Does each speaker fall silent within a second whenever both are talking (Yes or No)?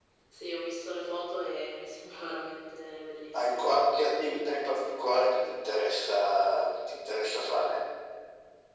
Yes